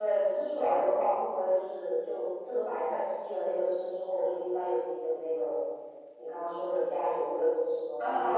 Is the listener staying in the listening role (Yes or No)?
No